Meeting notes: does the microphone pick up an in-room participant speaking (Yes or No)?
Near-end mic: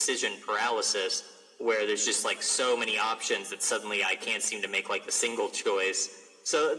No